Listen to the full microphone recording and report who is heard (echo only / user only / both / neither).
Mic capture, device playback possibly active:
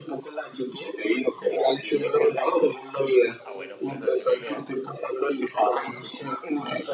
both